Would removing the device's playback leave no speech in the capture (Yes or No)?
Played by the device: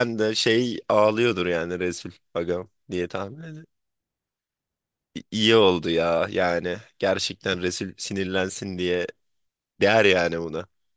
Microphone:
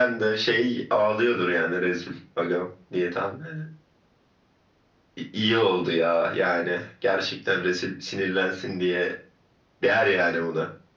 Yes